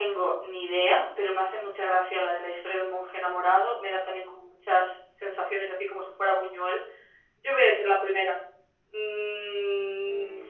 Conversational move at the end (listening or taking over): taking over